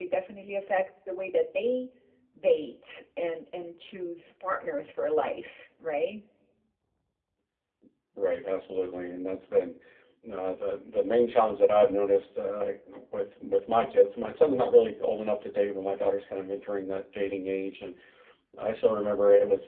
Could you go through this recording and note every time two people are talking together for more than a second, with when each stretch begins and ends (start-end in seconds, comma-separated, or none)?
none